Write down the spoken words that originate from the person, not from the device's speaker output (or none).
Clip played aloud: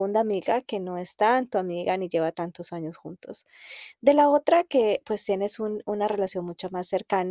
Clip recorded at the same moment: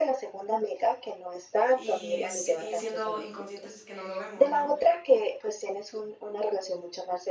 Y si y siendo inconscientes que no lo vemos, ¿no?